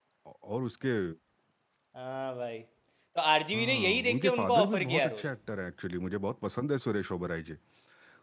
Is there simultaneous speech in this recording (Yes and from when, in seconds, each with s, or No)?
Yes, from 3.5 s